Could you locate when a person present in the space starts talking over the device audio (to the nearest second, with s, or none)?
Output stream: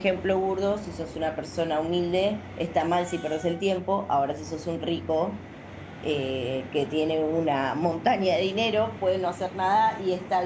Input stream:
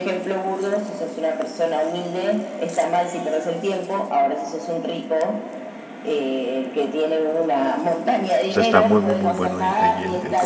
8 s